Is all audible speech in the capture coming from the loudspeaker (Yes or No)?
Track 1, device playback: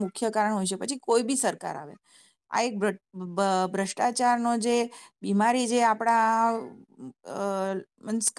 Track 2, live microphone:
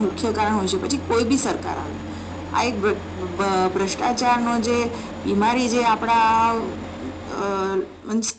Yes